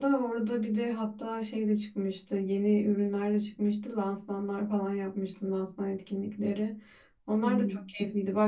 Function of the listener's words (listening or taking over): listening